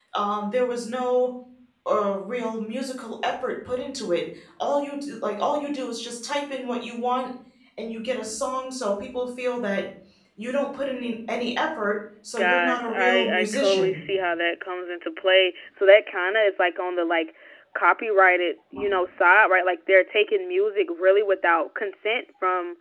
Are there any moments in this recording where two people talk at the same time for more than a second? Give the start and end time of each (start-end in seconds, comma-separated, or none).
12.4-14.1